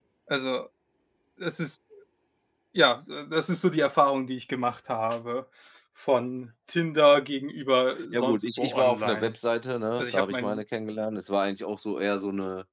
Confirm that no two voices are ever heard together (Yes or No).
No